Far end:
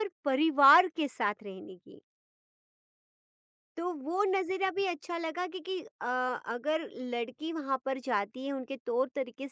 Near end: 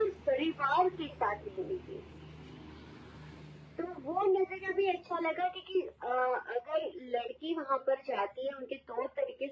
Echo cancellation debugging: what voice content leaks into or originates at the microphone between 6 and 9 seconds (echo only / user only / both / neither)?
echo only